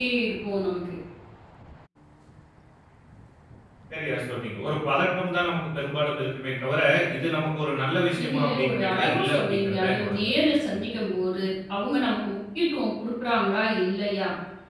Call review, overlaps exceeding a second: present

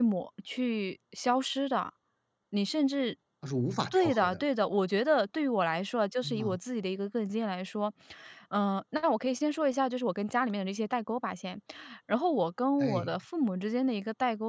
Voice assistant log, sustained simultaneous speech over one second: none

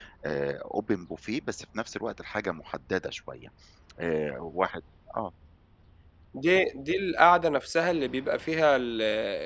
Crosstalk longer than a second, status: none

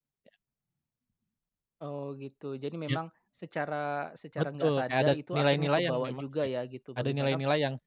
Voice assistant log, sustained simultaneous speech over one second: present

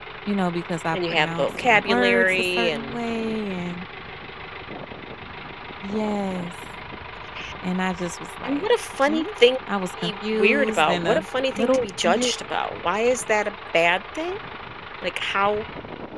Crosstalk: present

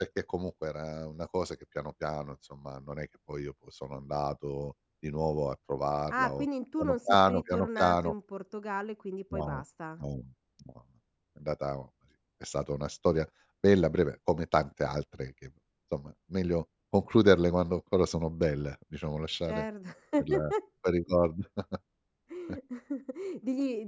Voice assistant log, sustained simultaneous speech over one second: present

